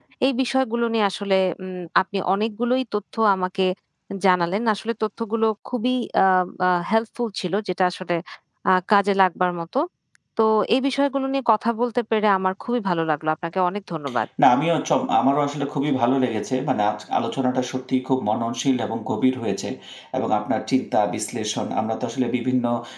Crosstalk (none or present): none